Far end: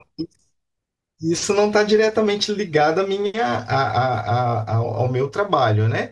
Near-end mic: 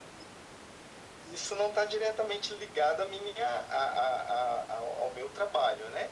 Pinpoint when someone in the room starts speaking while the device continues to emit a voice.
none

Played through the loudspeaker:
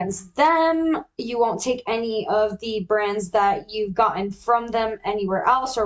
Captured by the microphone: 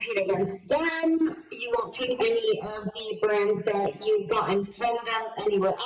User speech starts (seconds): none

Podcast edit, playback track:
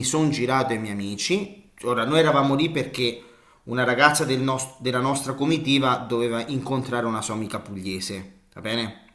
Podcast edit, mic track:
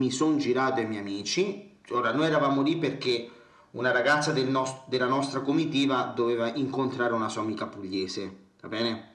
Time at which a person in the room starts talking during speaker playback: none

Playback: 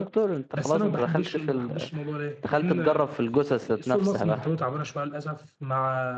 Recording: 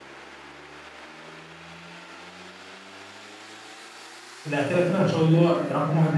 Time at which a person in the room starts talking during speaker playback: 4.4 s

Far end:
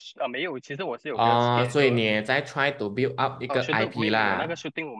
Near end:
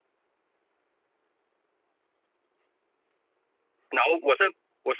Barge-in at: 3.9 s

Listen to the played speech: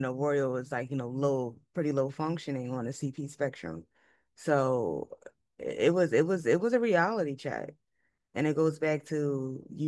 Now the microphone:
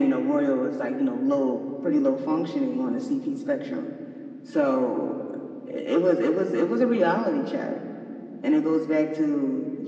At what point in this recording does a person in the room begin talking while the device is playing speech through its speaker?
none

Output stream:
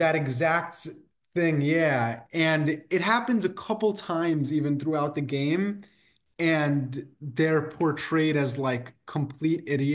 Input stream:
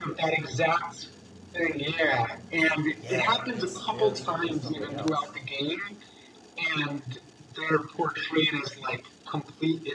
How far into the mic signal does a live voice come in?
3.0 s

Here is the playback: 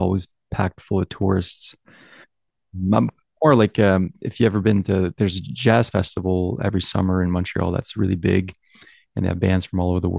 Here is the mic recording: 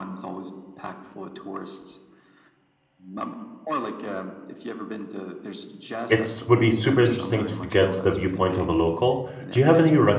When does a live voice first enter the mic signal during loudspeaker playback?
6.1 s

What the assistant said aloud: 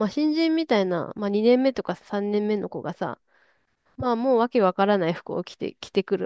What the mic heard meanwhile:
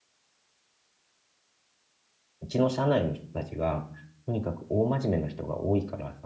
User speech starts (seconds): 2.4 s

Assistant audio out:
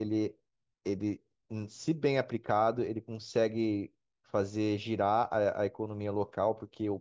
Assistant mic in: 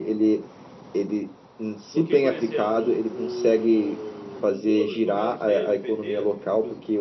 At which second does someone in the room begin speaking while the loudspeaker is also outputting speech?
1.9 s

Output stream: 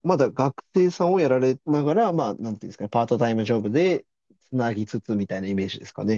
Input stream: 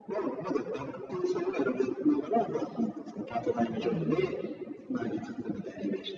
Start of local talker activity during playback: 3.8 s

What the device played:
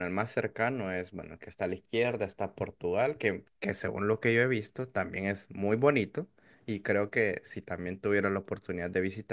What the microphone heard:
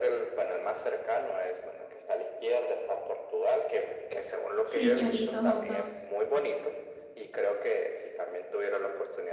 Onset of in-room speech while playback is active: 4.7 s

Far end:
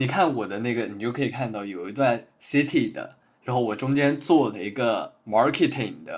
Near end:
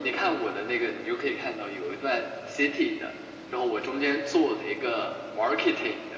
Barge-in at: none

